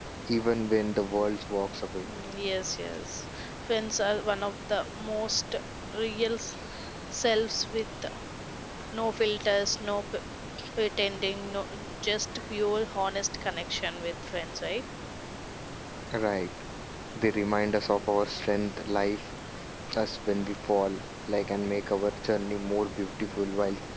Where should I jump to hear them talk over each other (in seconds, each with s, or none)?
none